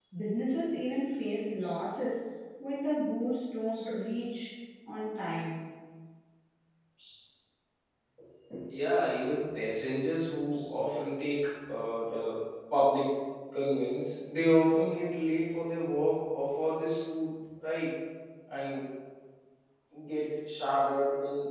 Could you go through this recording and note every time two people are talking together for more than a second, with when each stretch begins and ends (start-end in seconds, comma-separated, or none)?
none